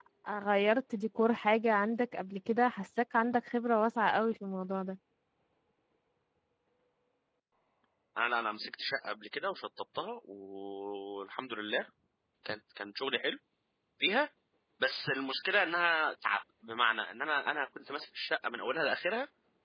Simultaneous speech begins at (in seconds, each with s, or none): none